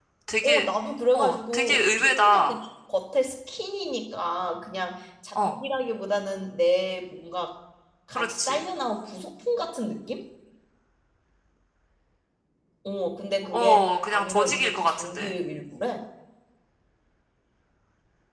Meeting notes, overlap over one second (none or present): present